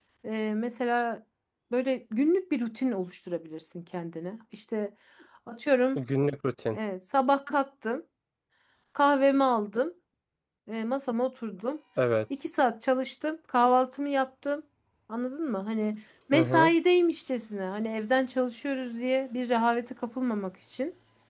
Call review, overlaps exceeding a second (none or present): none